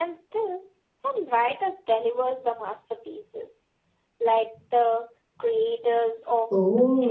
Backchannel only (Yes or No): No